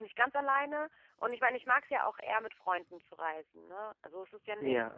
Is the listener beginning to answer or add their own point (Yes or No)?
Yes